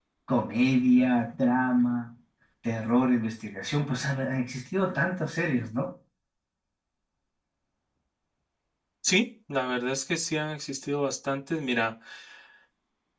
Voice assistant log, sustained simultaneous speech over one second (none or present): none